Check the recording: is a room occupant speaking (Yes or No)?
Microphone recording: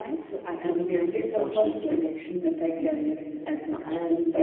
Yes